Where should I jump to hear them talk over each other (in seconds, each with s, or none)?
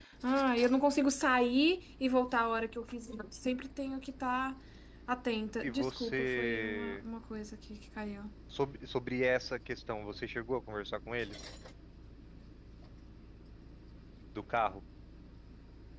5.6 s